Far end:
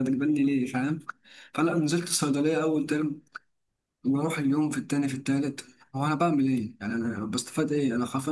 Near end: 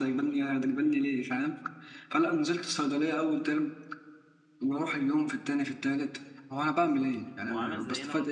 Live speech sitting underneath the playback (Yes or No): Yes